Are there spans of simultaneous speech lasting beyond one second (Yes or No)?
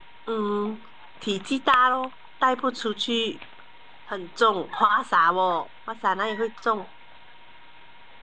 No